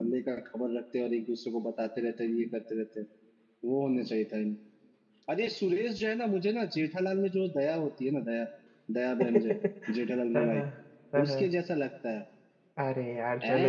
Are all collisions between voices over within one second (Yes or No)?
Yes